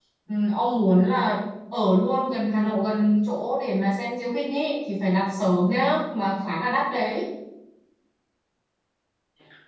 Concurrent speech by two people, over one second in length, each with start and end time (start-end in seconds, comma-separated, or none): none